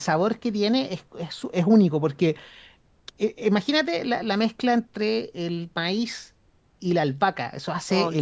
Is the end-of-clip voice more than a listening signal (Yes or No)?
No